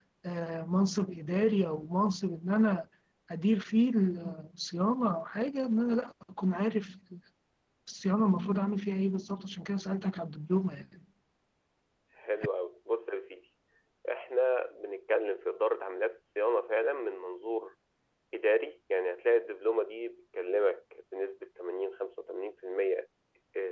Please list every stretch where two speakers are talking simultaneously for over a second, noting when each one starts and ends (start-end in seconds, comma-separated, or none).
none